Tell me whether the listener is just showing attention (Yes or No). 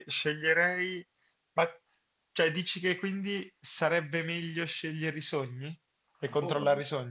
No